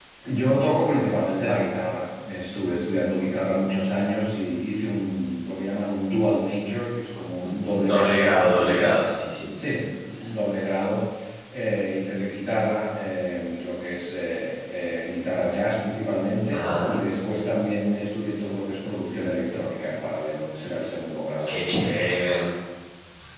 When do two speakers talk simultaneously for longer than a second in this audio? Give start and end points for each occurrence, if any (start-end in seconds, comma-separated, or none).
7.4-9.0